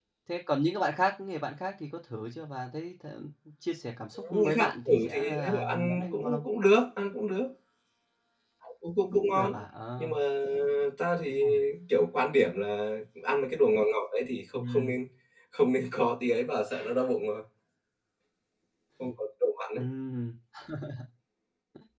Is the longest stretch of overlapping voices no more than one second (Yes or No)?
No